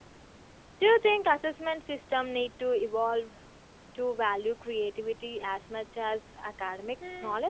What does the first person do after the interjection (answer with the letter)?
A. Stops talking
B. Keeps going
A